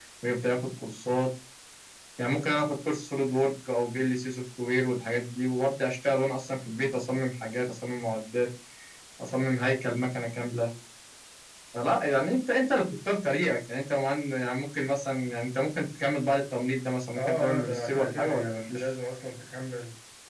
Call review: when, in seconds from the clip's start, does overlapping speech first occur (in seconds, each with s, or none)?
17.2 s